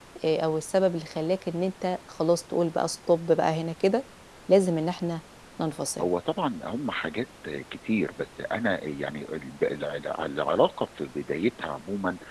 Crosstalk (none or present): none